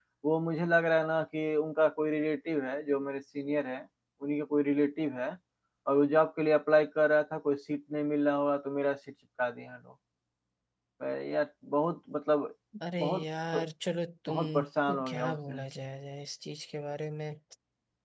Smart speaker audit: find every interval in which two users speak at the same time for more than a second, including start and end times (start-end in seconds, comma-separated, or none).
14.3-15.6